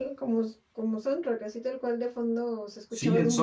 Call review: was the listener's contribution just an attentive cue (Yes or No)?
No